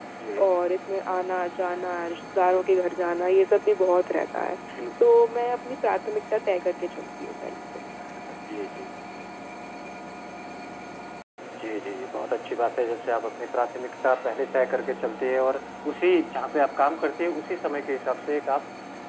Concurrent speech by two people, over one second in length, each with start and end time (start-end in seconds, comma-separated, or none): none